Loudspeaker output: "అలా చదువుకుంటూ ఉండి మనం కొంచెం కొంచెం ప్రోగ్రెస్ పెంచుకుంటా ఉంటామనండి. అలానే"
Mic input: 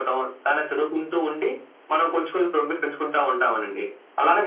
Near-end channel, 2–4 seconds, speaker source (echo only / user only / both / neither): echo only